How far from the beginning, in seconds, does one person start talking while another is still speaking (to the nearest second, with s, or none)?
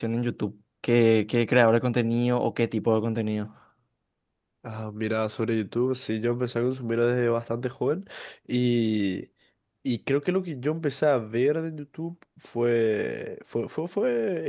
none